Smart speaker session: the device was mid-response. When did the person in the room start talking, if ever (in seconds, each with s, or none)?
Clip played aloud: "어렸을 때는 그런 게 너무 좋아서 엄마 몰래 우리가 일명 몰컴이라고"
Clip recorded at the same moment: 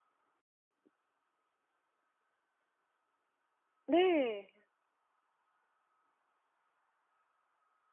3.9 s